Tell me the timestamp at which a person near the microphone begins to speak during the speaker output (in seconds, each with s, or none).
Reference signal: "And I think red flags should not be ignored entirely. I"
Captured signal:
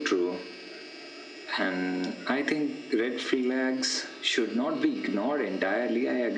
none